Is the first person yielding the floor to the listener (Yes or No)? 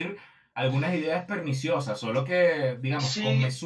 Yes